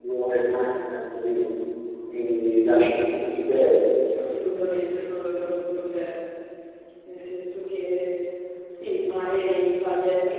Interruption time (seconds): none

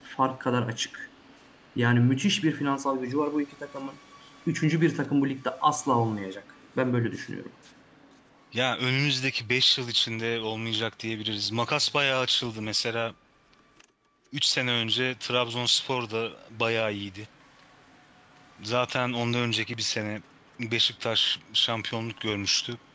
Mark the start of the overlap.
none

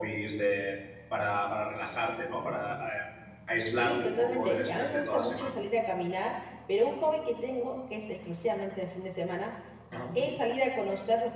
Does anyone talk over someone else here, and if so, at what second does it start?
3.7 s

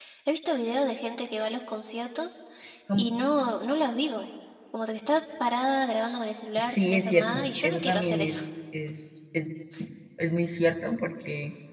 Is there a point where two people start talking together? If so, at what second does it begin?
6.6 s

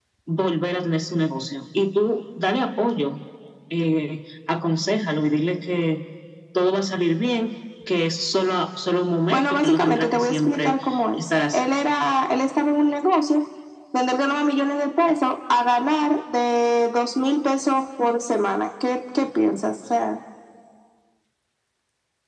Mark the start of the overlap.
9.3 s

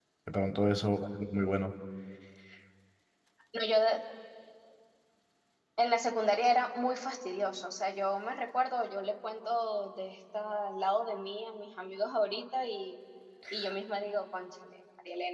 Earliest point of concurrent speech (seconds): none

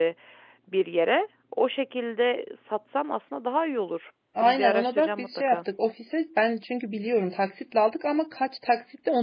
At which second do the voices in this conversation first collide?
4.3 s

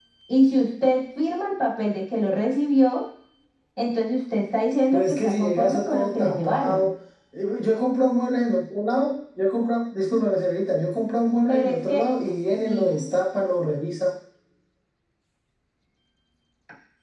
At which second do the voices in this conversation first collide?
4.9 s

